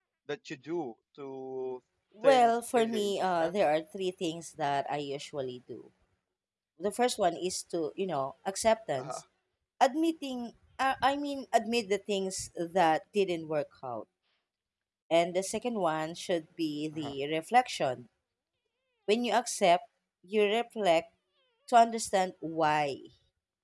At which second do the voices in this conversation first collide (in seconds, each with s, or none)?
2.2 s